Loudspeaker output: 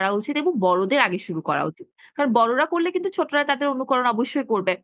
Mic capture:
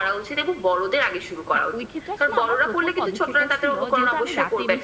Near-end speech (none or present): present